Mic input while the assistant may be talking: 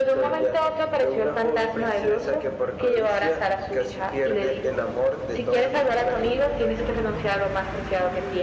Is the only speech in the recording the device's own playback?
Yes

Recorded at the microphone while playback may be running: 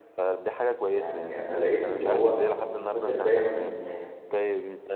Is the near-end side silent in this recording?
No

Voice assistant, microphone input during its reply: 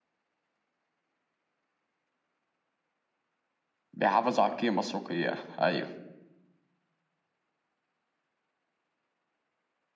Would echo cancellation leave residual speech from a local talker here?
Yes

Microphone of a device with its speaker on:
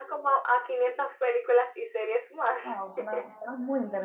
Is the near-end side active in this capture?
Yes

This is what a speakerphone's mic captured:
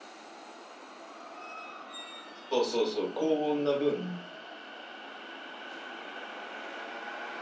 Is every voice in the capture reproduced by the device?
No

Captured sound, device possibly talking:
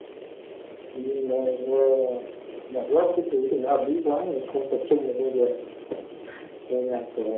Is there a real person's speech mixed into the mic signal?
No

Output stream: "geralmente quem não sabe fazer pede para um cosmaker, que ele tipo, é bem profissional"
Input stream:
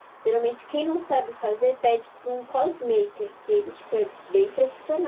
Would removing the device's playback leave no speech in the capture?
Yes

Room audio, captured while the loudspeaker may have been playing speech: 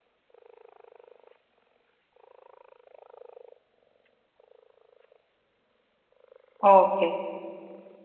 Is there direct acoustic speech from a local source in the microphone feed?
Yes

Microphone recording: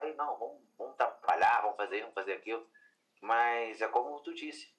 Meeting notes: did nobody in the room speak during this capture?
Yes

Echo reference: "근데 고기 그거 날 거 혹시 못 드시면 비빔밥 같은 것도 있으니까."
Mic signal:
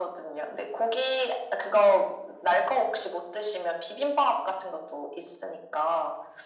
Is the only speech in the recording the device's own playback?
Yes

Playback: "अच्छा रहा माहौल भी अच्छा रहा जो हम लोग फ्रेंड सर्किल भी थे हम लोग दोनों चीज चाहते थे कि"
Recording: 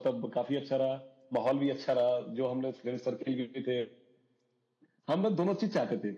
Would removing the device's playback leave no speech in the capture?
Yes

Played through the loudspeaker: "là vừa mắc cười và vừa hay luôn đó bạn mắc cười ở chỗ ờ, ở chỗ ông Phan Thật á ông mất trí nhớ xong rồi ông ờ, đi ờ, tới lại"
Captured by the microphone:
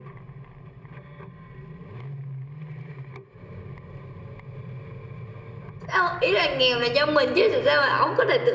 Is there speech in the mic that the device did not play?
Yes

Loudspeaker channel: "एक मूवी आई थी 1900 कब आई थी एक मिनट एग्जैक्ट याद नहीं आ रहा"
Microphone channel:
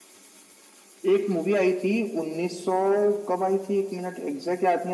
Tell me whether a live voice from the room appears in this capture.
No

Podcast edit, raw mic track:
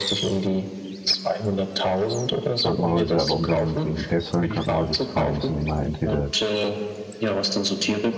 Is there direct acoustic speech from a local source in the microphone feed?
Yes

